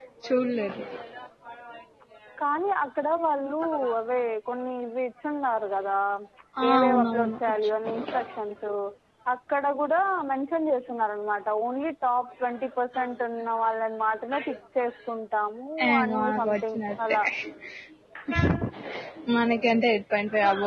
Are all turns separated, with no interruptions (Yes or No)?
No